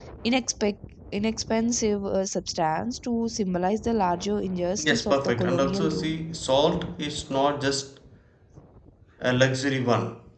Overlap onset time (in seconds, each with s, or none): 4.8 s